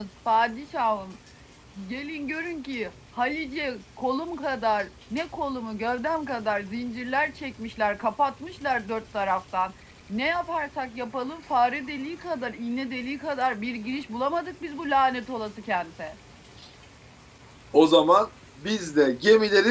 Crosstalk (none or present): none